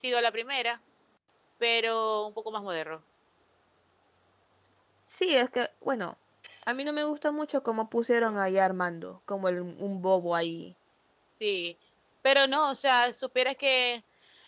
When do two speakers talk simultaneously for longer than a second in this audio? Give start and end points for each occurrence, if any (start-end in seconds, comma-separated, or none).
none